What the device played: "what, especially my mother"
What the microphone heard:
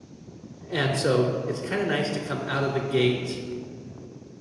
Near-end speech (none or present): present